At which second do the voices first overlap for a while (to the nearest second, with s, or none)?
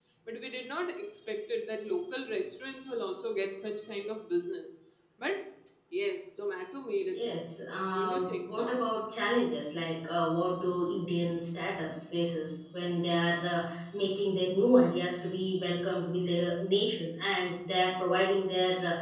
7 s